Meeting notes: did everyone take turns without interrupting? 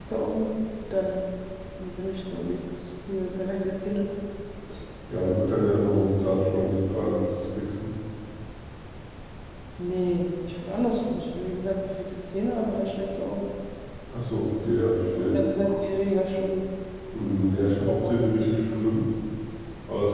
No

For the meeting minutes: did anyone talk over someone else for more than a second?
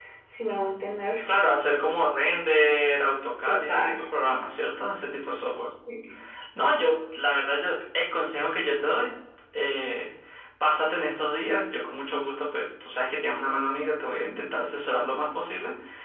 No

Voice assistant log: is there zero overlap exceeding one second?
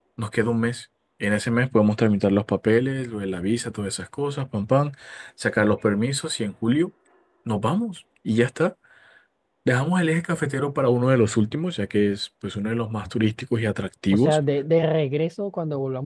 Yes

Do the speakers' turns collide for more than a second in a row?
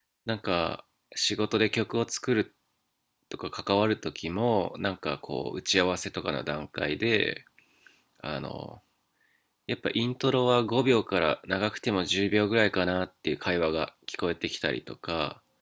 No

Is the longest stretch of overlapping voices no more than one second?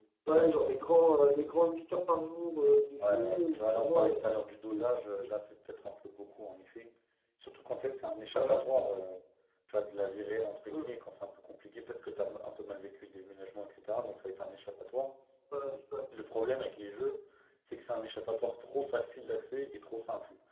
No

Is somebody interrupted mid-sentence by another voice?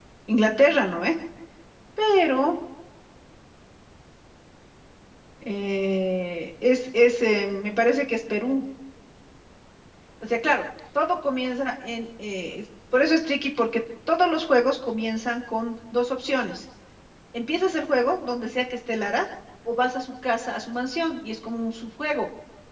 No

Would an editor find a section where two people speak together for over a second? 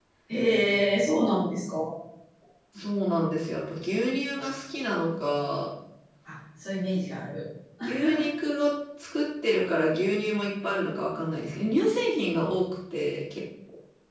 No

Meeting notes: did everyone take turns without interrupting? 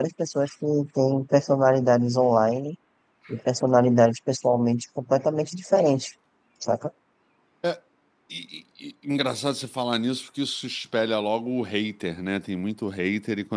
Yes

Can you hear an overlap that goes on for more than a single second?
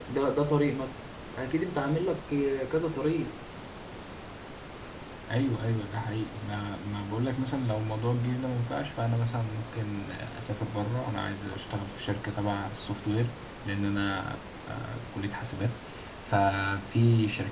No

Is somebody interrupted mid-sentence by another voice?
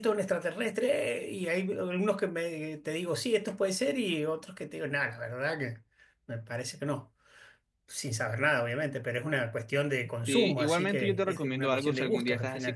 Yes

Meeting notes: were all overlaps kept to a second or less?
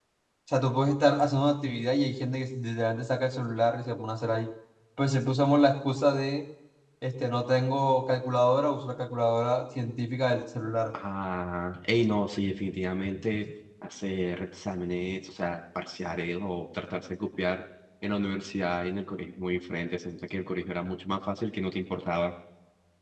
Yes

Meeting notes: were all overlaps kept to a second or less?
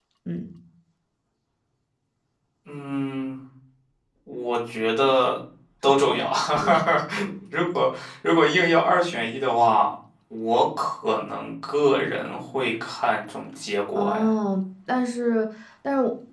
Yes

